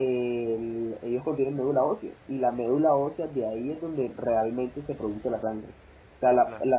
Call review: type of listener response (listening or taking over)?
listening